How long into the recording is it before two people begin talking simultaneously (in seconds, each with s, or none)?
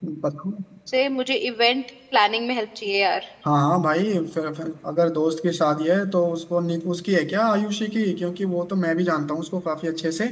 none